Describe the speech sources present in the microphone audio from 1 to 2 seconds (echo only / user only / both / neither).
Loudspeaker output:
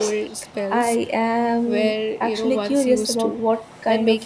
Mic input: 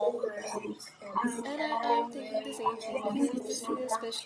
both